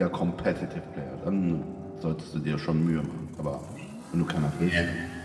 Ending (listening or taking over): listening